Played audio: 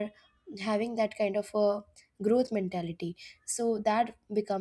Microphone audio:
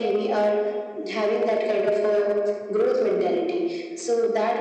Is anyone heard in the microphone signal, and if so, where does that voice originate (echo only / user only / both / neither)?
echo only